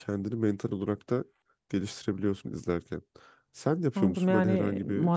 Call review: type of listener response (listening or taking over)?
taking over